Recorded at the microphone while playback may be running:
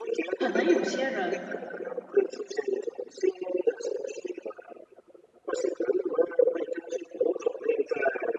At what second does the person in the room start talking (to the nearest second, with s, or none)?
0 s